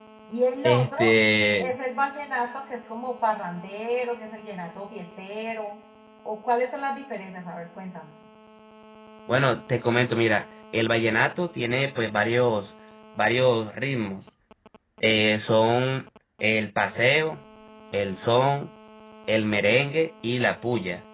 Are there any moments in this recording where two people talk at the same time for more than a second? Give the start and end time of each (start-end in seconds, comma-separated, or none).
none